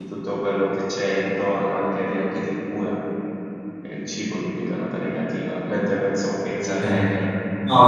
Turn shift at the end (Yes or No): Yes